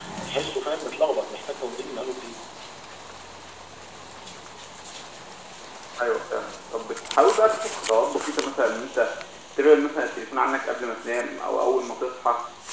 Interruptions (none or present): none